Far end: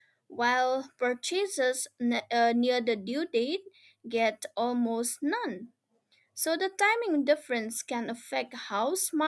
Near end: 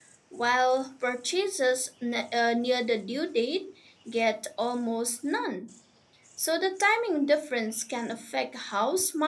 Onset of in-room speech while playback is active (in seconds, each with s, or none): none